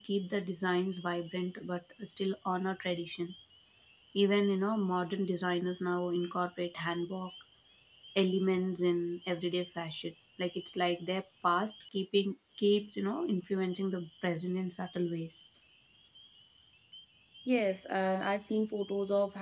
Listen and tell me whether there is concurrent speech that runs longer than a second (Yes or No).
No